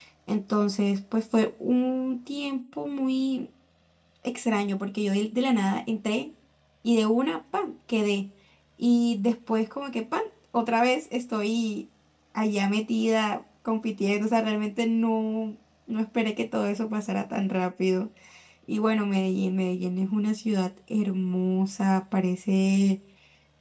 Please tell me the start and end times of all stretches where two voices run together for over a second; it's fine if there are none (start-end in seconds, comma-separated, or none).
none